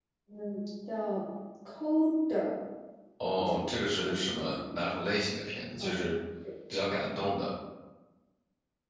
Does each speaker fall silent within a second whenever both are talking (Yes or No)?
No